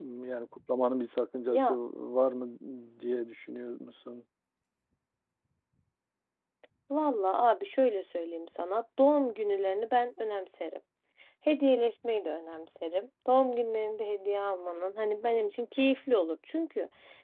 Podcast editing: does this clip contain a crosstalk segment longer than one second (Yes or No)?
No